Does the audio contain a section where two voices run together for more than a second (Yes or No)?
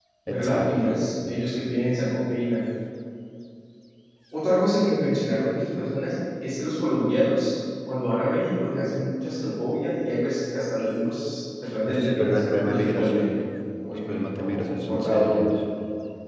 Yes